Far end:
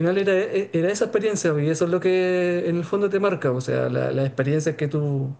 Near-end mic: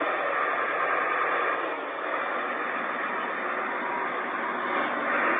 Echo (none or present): none